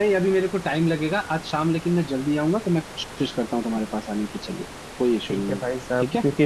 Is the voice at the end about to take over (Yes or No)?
Yes